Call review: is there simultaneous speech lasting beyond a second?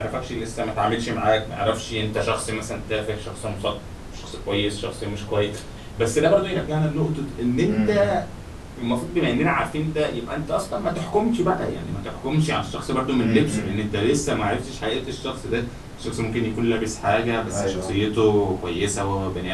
No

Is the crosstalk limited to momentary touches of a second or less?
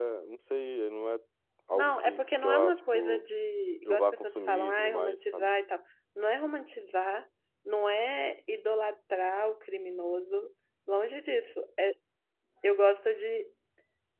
No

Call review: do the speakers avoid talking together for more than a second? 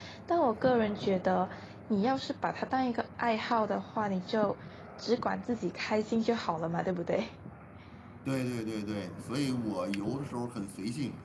Yes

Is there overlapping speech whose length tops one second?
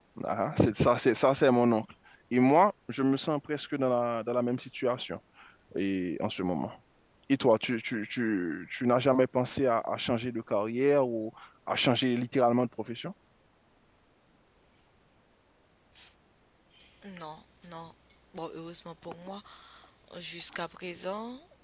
No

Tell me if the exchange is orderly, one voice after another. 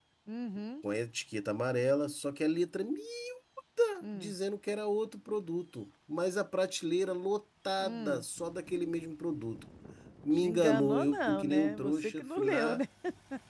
No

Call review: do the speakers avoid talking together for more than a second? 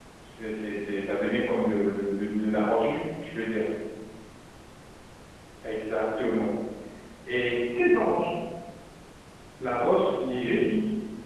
Yes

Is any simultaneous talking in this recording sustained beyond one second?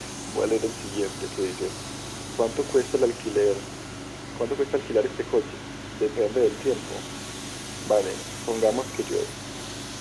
No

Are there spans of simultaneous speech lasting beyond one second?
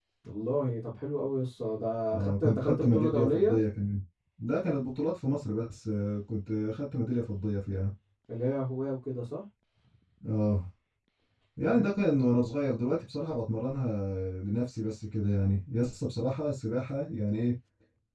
Yes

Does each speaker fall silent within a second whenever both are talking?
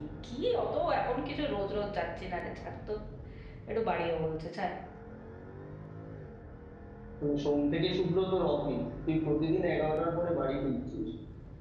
Yes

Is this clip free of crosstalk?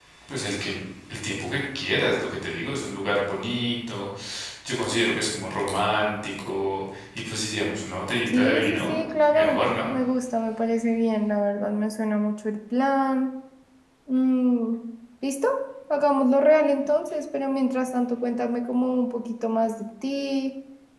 No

